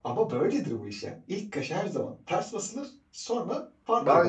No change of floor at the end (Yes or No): No